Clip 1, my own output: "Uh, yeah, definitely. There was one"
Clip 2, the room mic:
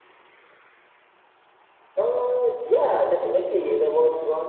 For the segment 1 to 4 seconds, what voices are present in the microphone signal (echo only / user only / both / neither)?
echo only